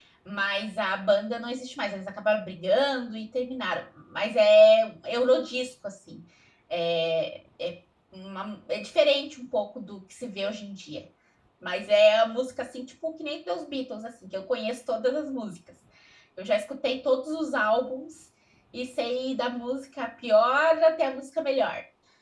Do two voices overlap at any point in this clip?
No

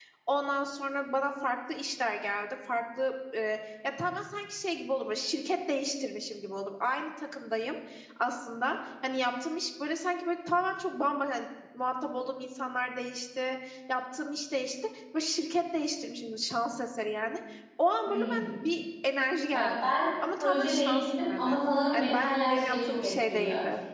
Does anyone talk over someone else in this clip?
Yes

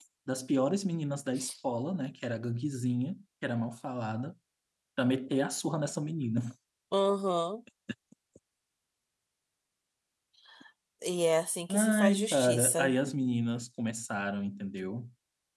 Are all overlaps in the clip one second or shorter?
No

